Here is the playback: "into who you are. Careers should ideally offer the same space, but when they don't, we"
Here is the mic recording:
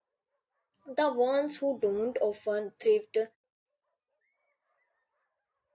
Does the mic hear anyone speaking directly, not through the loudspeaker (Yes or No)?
Yes